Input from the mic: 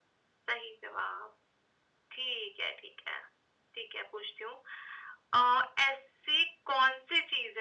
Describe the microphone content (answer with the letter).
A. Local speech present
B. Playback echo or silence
B